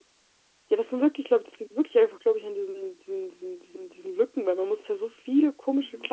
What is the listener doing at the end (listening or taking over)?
listening